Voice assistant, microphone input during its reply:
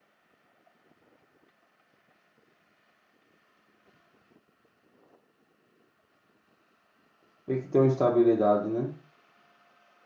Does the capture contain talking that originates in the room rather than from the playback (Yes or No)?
Yes